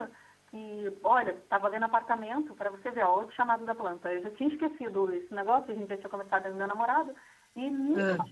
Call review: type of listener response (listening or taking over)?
listening